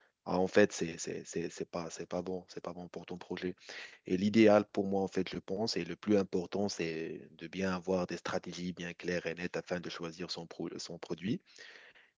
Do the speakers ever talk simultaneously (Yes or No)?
No